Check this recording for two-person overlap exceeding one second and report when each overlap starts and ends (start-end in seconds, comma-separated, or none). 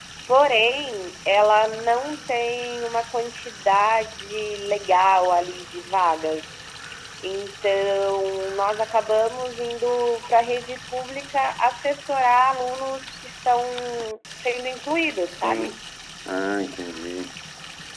none